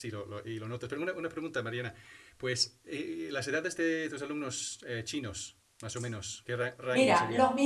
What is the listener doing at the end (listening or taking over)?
taking over